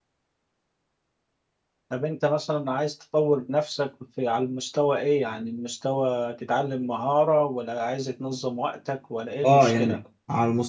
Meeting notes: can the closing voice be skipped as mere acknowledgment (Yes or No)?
No